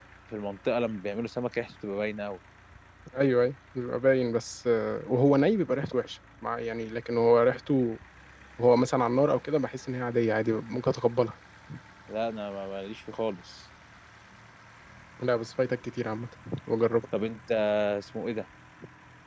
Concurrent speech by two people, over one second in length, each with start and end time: none

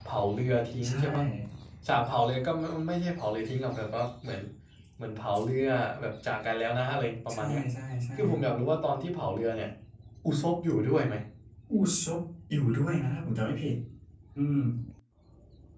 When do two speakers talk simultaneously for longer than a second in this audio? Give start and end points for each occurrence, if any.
none

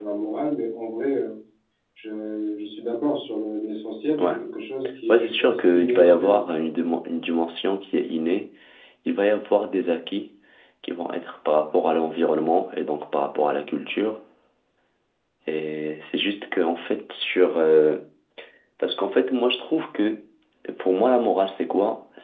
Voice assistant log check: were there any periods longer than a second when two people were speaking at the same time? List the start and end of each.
5.1-6.4

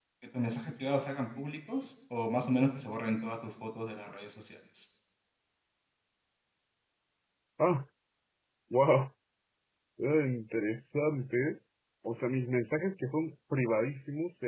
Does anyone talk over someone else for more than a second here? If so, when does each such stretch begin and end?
none

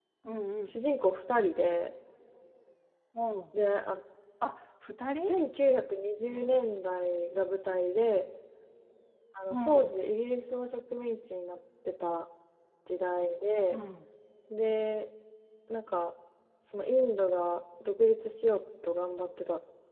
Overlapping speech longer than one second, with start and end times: none

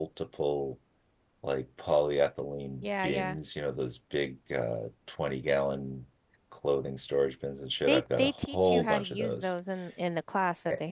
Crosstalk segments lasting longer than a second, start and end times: 7.9-9.5

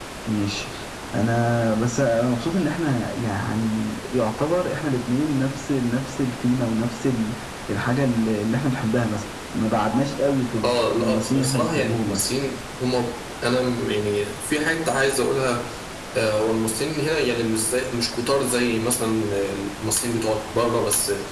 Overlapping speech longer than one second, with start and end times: 10.6-12.2

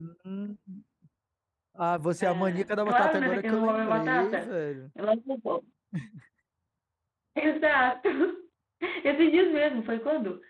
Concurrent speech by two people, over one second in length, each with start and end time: 2.2-4.5

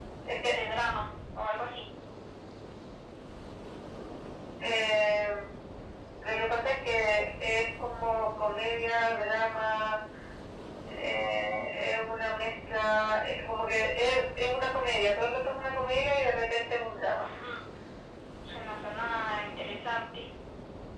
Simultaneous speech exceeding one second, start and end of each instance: none

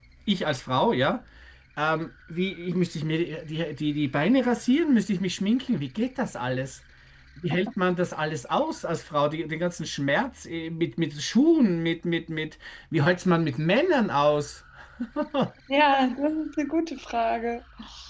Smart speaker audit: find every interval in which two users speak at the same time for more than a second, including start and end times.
none

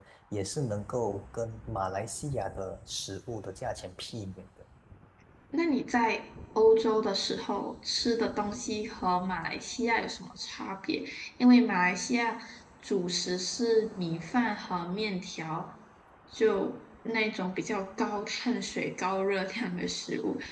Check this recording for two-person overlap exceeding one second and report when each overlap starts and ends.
none

